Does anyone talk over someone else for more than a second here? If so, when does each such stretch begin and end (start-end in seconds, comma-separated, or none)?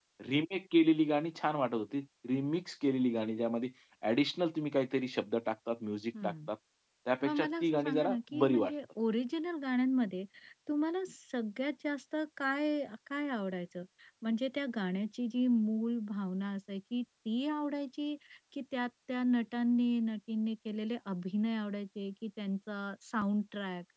7.2-8.7